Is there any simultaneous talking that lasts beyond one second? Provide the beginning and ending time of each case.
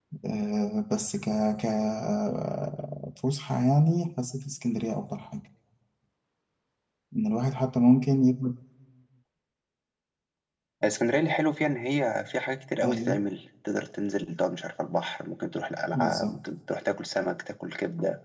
none

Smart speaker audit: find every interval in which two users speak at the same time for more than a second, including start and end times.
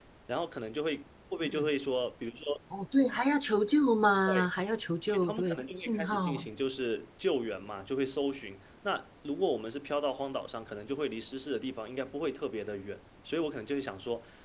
5.1-6.5

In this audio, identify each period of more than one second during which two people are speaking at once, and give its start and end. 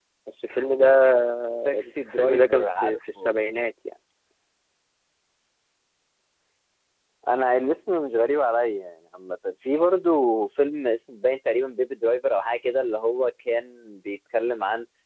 2.1-3.4

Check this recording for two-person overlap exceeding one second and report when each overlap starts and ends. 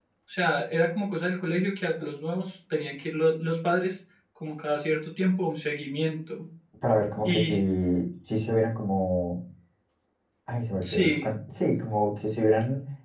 none

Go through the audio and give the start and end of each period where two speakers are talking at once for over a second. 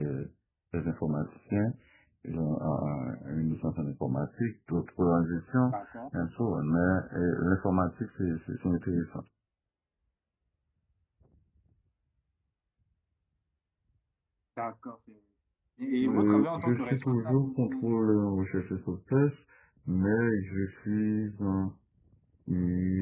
16.0-17.9

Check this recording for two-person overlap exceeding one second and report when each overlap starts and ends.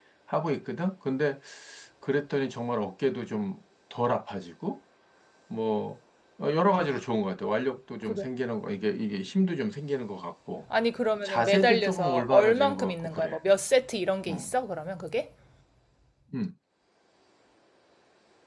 11.2-13.4

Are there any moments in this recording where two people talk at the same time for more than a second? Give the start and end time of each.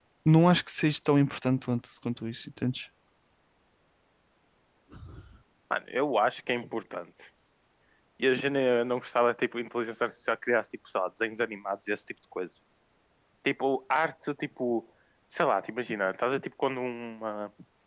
none

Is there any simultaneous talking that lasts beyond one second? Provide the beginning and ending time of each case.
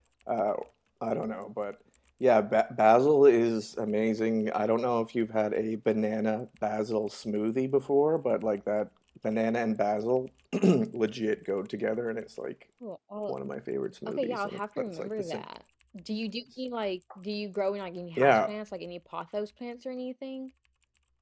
14.1-15.4

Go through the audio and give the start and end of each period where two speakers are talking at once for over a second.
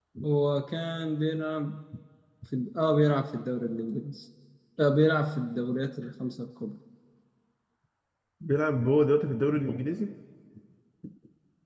none

